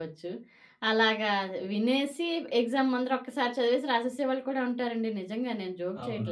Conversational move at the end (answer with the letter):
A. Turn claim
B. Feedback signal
A